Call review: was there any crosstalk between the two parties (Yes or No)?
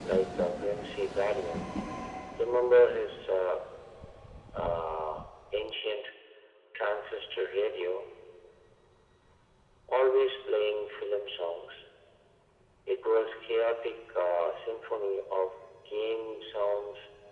No